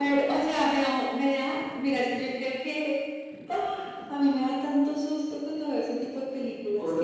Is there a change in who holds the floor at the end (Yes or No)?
Yes